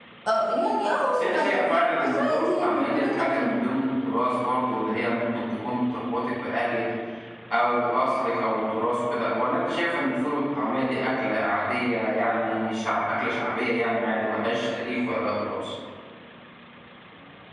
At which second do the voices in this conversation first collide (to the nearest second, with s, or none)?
1 s